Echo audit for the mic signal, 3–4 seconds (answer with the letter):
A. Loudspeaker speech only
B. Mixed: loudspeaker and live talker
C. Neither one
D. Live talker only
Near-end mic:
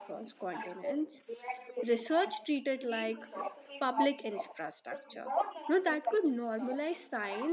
B